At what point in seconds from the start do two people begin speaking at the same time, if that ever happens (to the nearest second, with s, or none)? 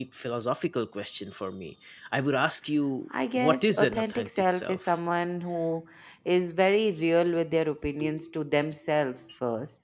3 s